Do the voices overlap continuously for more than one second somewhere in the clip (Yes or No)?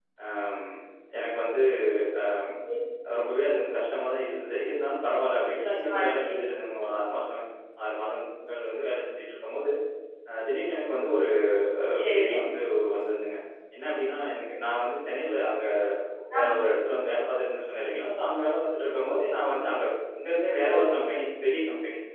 No